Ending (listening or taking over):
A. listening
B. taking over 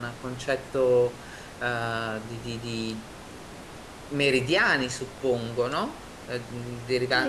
B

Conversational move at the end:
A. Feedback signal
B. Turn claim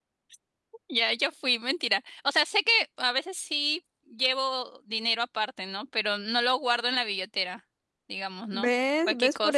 B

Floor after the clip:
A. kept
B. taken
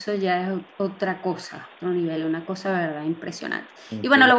A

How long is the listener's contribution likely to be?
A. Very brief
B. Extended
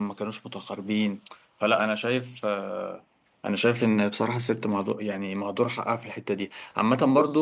A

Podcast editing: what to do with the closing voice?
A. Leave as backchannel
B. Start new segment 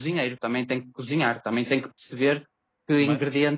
A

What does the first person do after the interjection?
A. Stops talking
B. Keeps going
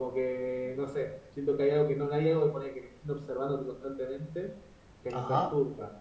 B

